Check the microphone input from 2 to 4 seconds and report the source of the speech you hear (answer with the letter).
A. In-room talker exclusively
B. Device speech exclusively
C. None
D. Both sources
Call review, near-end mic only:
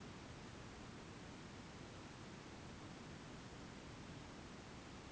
C